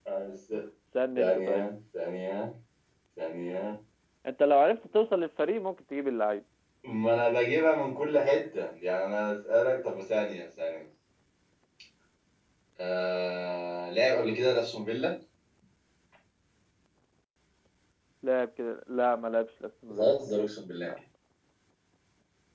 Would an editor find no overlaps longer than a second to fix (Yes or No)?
Yes